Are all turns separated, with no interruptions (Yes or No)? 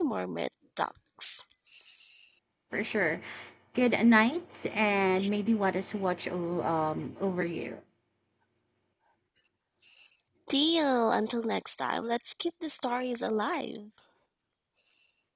Yes